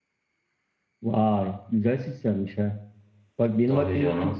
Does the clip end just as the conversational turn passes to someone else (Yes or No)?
No